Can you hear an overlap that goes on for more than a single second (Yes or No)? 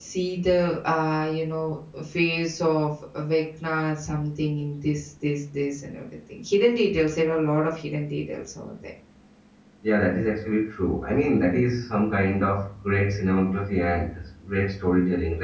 No